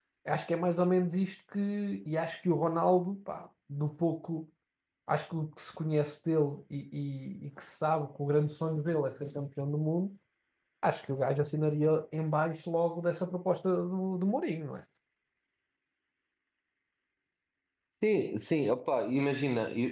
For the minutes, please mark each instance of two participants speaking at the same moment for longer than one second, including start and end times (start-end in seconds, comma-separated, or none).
none